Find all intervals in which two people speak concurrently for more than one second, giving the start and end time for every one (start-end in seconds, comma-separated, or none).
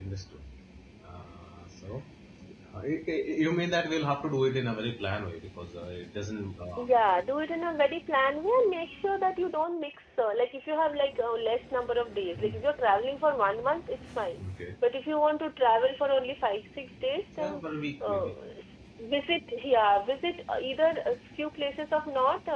none